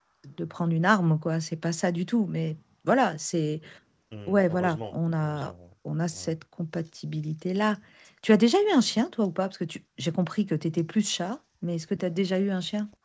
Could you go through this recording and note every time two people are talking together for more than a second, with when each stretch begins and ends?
4.3-5.5

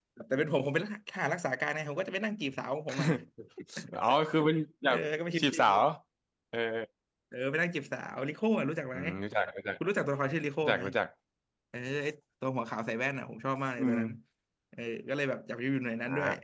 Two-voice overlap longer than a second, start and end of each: none

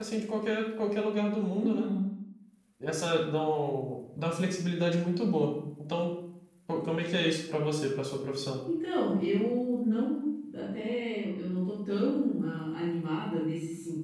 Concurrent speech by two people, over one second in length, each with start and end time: none

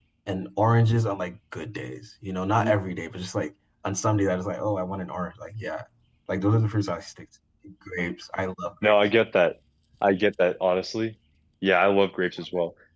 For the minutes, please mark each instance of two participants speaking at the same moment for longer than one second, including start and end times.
none

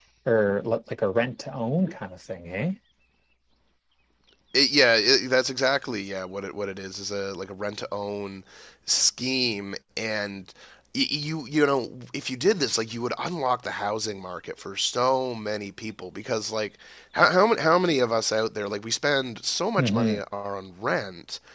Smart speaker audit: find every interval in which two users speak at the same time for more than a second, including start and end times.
none

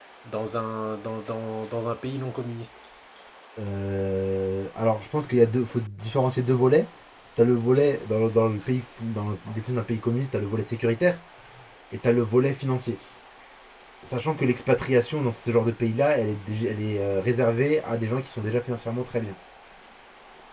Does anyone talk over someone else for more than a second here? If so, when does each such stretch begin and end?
none

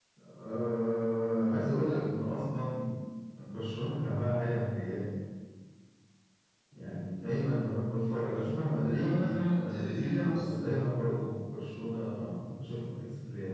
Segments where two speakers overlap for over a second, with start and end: 8.9-10.6

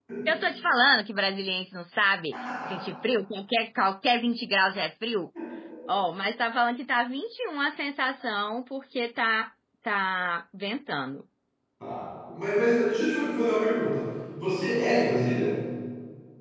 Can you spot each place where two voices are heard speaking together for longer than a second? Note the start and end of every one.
none

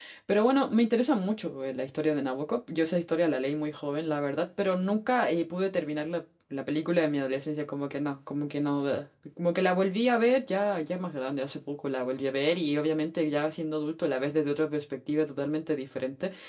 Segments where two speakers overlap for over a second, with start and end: none

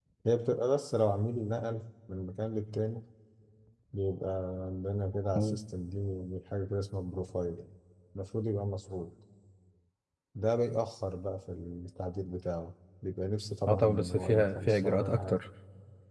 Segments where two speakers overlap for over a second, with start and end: 13.7-15.4

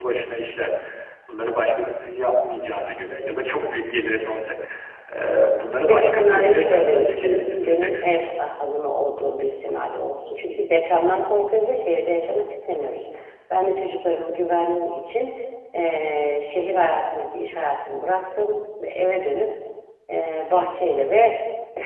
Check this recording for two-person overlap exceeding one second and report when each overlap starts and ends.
5.9-8.1

